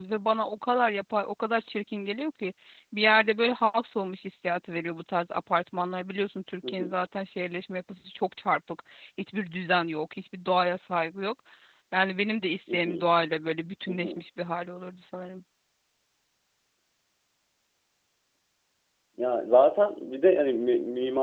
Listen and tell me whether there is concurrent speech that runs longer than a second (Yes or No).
No